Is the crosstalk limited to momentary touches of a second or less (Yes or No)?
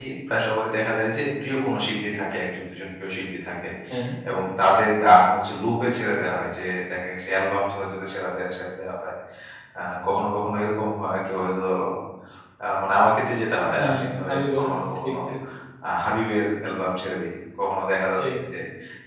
No